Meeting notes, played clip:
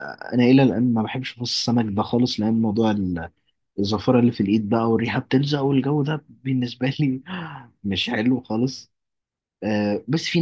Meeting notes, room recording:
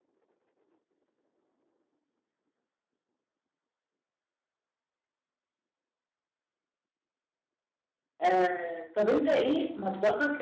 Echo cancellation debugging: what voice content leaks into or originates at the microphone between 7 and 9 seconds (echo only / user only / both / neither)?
user only